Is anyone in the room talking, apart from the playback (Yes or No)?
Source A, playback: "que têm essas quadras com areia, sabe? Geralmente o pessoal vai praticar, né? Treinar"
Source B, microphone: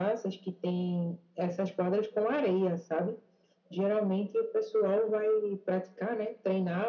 No